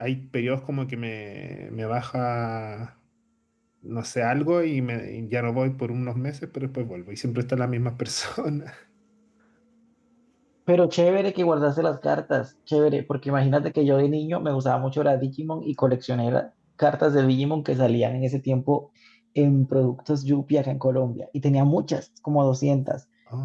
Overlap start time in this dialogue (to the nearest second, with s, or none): none